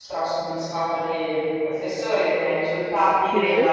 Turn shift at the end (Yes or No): No